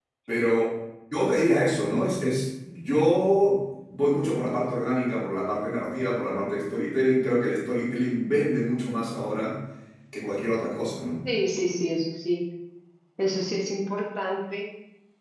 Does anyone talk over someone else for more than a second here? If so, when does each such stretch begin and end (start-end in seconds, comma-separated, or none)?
none